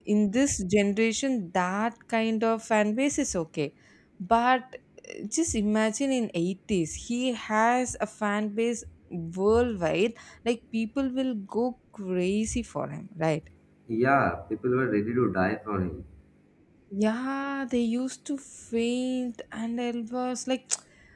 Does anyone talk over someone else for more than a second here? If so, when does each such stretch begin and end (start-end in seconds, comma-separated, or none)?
none